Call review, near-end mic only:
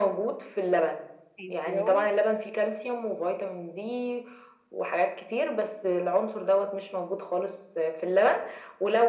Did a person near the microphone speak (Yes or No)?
Yes